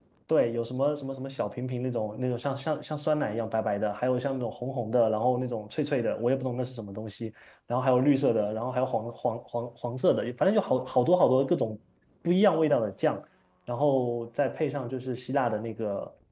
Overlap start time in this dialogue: none

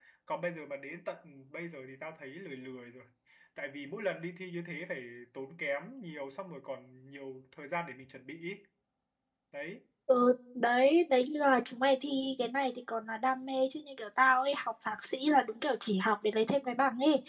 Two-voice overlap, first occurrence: none

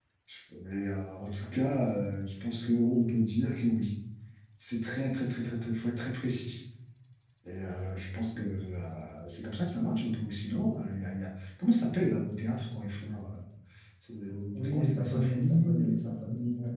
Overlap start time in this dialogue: 14.6 s

